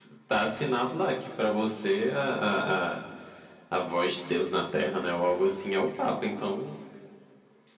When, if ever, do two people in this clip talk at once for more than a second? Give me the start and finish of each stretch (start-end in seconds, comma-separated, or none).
none